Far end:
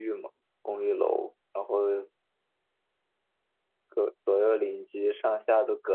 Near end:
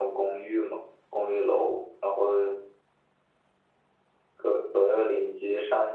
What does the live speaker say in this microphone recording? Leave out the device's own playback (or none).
none